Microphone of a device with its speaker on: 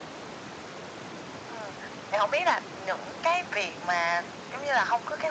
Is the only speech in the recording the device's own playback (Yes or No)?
Yes